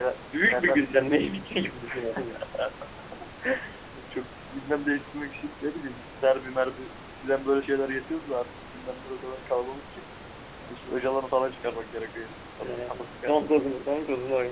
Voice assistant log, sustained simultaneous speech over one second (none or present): present